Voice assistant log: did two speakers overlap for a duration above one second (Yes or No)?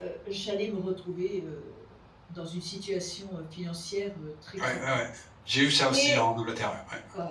No